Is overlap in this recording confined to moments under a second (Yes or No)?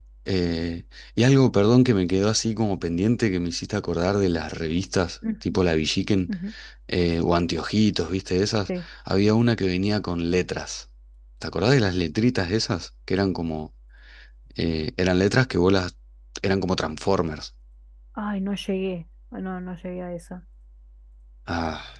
Yes